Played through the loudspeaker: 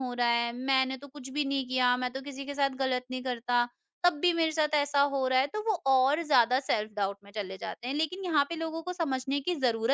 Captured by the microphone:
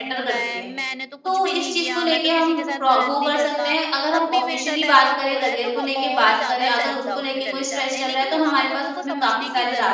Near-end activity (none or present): present